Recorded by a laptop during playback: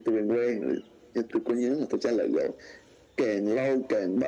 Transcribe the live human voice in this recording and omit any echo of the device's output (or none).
none